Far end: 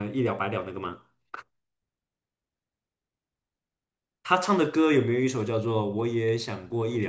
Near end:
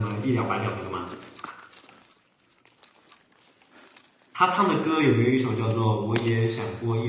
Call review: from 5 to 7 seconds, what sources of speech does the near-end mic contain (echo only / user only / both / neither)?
echo only